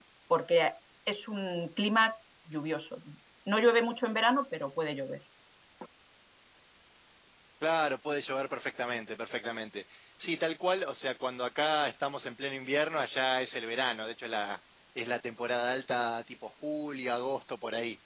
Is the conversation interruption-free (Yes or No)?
Yes